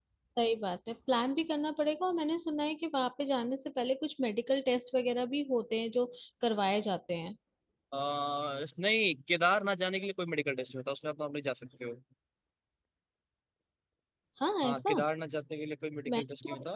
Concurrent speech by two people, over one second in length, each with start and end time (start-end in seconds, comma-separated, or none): none